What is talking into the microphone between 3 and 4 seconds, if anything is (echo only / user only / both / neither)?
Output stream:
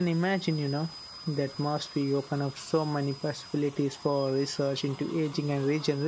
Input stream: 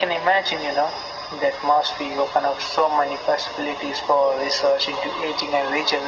echo only